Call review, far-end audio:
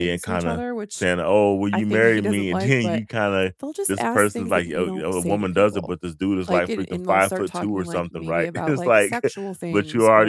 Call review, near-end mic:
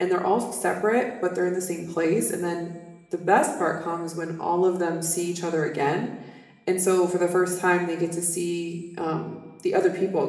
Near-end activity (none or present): present